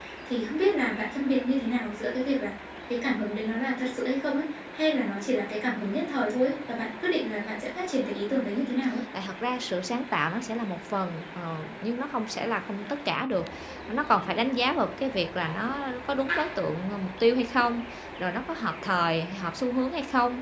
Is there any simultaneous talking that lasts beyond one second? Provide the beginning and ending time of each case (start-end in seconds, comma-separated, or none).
none